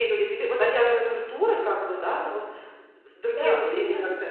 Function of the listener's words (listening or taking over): taking over